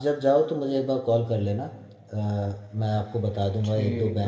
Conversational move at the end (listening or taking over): listening